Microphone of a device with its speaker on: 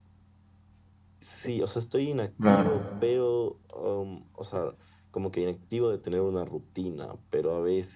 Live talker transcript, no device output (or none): Claro.